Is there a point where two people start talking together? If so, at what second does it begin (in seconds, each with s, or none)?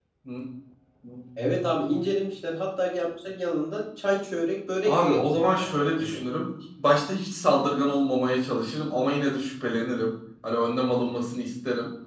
4.8 s